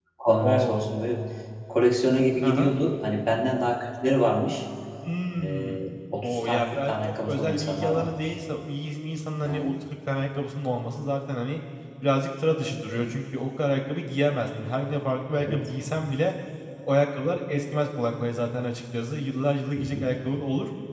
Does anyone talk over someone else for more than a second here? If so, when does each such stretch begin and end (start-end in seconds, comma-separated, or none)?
6.2-8.3